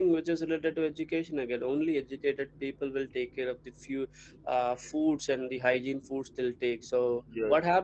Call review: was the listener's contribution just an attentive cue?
Yes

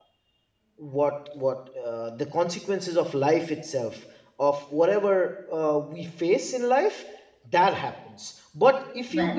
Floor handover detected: No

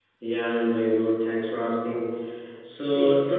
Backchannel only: Yes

